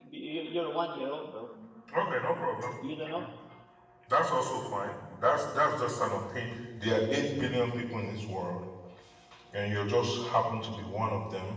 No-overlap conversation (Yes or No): Yes